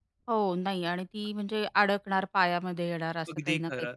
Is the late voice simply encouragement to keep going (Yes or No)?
No